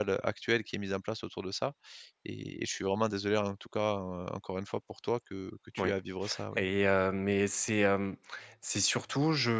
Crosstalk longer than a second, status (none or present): none